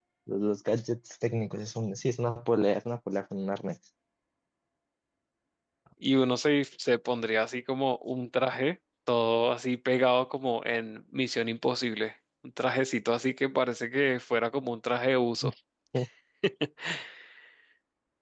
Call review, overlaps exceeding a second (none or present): none